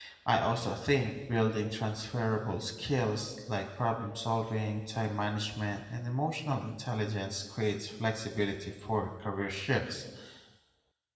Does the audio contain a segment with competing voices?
No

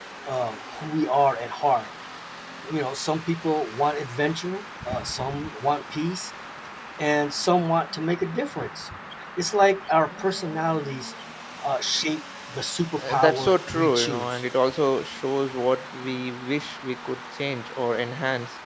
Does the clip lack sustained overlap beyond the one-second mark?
No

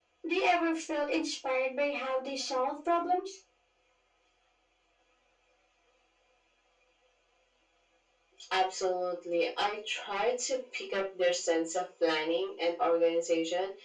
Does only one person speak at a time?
Yes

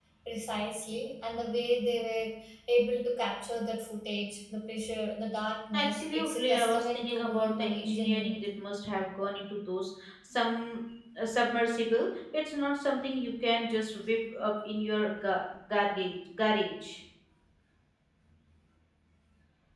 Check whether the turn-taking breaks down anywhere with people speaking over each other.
Yes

